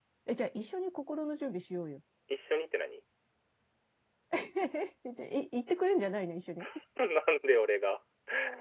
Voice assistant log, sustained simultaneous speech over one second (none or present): none